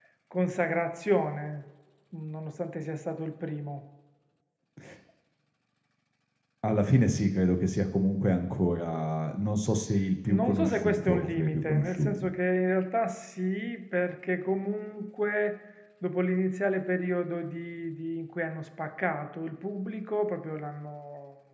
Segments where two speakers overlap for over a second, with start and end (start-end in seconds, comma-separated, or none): 10.3-12.3